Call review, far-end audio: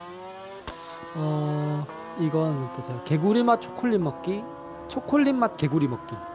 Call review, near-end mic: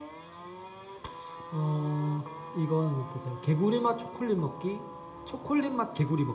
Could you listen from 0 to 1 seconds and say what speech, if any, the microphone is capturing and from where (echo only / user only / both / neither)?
neither